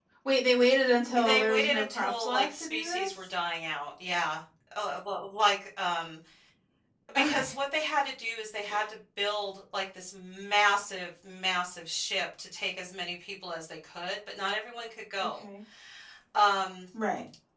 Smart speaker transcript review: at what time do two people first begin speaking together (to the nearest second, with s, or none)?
1 s